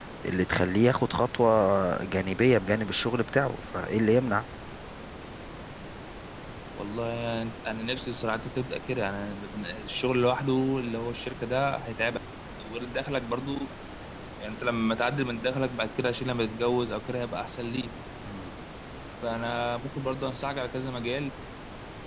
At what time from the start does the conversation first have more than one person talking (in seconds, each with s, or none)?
none